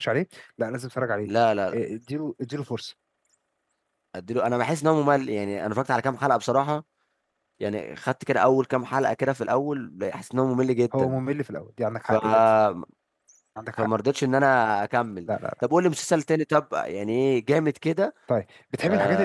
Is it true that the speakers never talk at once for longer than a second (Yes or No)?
Yes